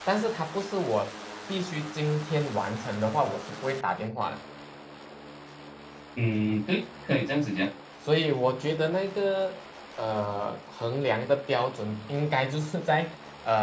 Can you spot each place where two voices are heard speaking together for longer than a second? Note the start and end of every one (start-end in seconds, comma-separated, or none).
none